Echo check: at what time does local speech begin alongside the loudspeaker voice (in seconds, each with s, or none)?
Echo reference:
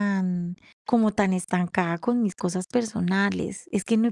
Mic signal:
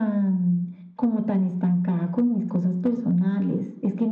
none